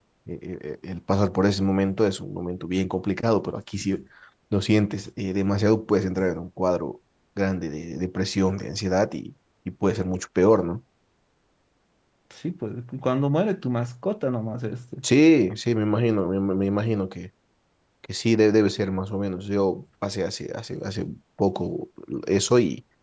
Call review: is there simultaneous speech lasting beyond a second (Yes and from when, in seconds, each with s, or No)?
No